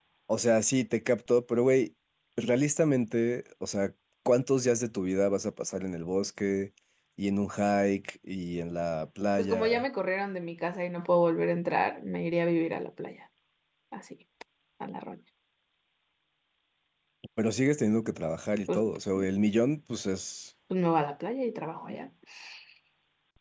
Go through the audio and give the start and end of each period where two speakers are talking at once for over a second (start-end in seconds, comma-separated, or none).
none